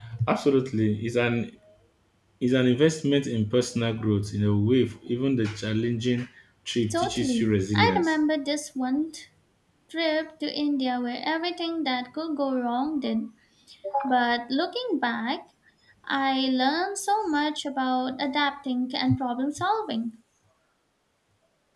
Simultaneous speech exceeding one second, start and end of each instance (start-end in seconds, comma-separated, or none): 6.9-8.1